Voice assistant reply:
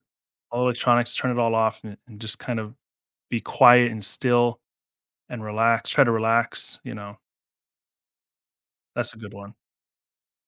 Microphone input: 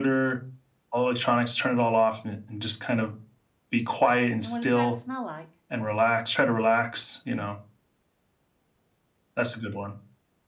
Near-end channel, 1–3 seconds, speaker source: echo only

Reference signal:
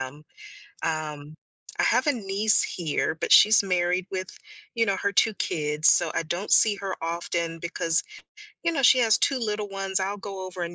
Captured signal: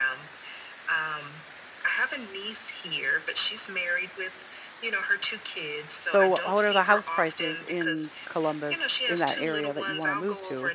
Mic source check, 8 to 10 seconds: both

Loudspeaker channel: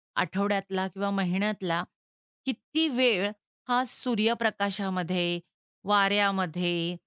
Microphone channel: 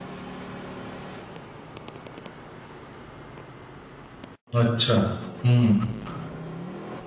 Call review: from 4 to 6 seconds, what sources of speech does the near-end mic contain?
user only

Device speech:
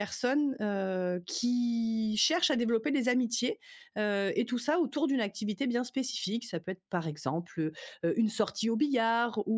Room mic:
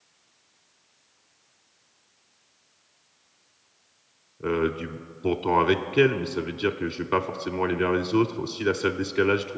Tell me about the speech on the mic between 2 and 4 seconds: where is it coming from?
neither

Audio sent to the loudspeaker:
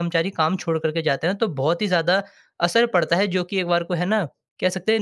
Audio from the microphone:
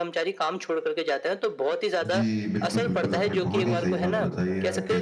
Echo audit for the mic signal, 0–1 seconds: echo only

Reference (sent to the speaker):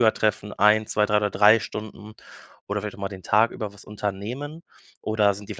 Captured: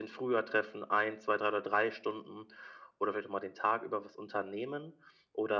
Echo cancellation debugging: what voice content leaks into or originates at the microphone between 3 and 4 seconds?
echo only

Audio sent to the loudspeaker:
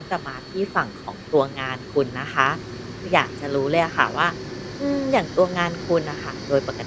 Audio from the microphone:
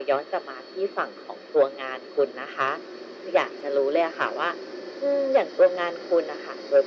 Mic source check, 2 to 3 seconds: echo only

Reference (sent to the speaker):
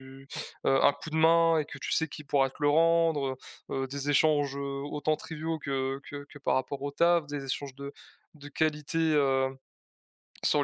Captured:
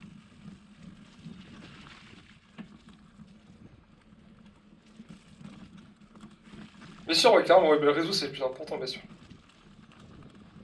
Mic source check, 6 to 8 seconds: user only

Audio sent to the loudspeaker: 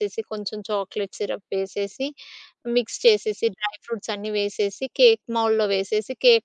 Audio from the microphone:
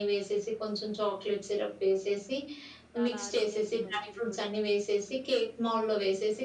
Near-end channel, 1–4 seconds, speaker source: both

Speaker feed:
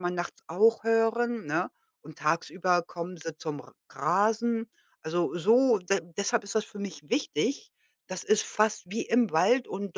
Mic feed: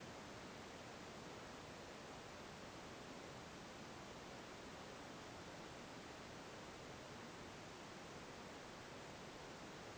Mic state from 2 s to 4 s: neither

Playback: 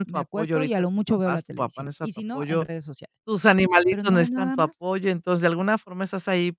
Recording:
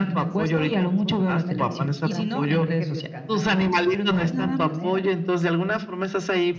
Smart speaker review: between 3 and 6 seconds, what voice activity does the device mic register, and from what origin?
both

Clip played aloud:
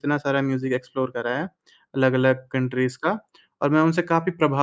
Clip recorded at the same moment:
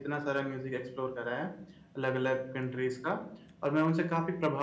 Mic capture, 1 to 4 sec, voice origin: echo only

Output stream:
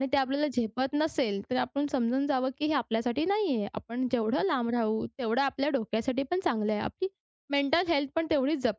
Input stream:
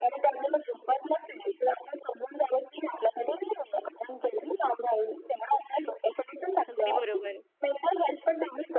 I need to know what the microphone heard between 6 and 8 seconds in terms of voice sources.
both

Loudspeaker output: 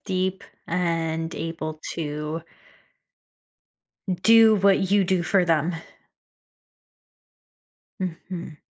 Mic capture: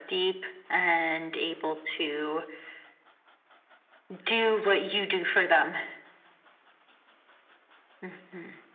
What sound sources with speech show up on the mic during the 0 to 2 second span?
echo only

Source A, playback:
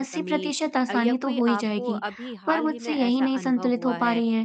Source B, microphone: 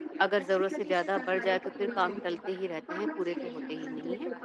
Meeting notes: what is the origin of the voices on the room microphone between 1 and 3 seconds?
both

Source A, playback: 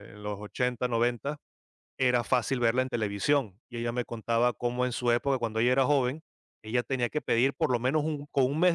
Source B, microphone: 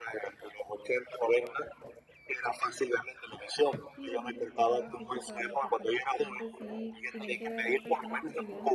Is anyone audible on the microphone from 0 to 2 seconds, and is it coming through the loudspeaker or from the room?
echo only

